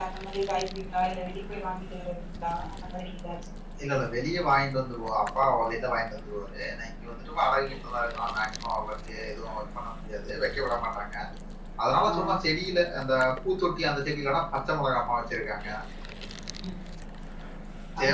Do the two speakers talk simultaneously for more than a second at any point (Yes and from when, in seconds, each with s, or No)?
No